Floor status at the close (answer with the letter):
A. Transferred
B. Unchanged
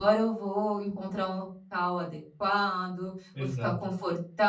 B